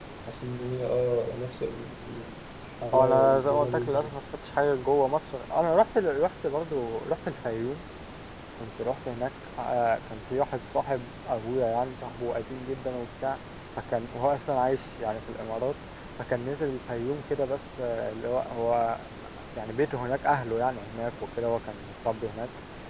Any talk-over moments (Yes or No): Yes